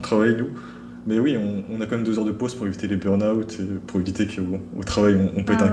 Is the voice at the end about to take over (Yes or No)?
Yes